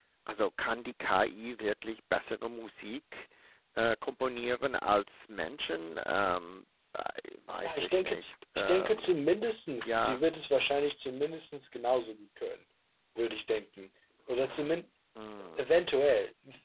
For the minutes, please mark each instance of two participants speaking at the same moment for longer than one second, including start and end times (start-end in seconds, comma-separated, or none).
7.6-9.1